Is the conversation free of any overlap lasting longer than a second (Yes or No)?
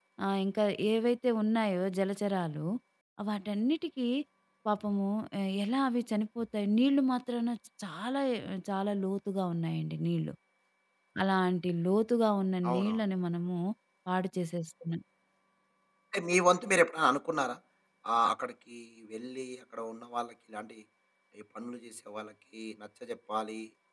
Yes